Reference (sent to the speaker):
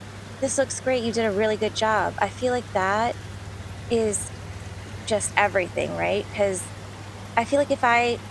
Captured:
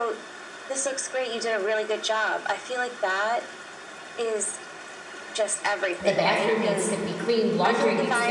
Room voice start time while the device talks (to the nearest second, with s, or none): 6 s